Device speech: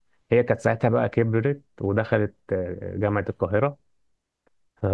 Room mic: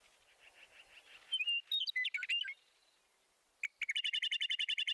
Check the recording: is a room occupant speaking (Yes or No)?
No